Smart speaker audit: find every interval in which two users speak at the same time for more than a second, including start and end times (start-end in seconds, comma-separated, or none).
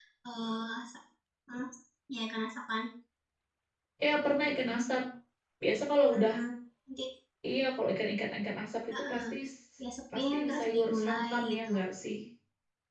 10.2-11.7